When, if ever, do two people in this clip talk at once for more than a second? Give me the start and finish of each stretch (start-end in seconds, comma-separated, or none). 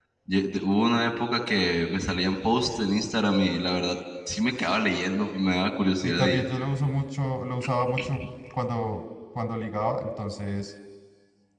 none